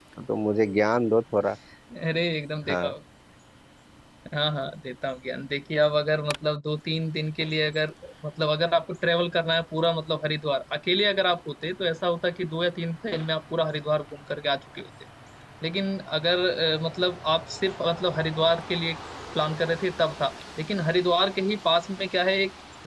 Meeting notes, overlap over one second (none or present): none